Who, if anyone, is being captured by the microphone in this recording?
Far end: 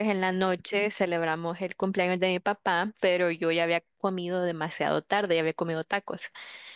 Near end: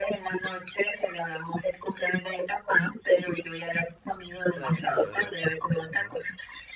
both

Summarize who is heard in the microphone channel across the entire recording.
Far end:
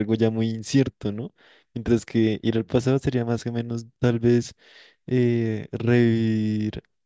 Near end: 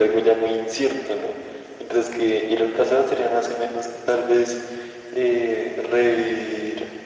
echo only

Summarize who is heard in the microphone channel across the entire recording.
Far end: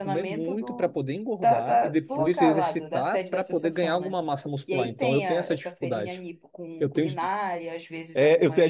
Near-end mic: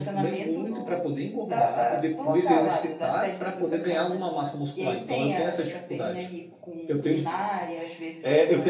echo only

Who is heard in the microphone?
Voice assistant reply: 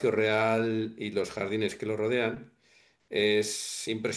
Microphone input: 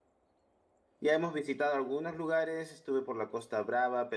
user only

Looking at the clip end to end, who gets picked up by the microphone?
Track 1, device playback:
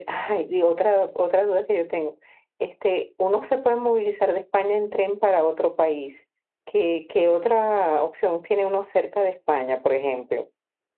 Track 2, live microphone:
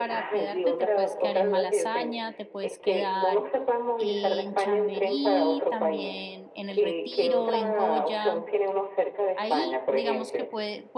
both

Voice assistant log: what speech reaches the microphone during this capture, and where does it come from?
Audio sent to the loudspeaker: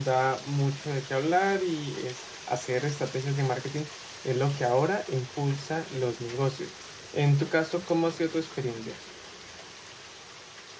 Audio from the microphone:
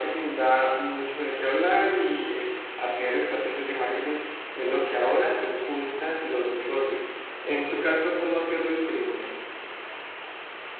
echo only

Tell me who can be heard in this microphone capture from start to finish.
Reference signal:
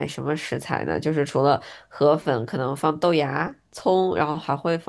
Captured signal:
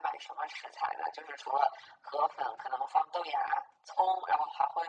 echo only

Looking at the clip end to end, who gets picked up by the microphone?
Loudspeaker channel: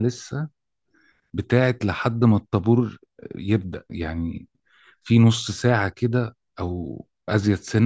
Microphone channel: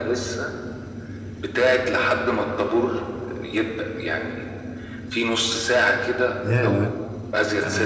both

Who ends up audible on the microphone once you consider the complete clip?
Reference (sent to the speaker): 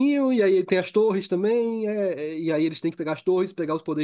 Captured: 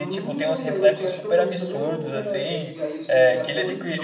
both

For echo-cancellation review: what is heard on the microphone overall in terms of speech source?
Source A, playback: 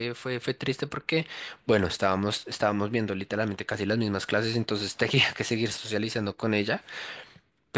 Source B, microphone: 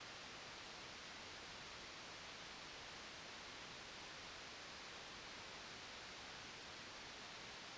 neither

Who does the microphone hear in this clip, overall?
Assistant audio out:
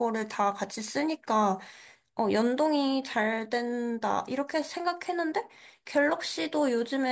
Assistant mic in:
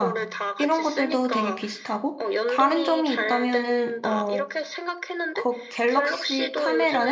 both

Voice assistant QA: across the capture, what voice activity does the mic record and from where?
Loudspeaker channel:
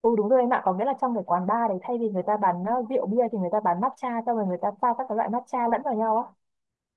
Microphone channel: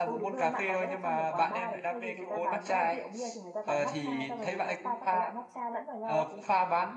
both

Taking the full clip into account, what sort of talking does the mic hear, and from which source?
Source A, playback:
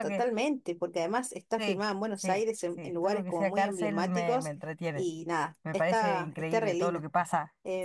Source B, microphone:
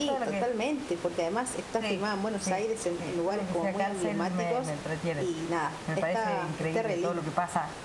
echo only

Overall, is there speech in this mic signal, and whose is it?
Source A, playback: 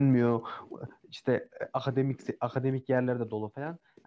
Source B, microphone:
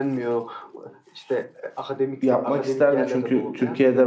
both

